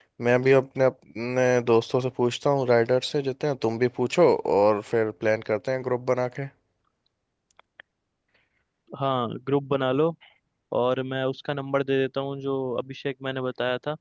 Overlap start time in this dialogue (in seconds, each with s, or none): none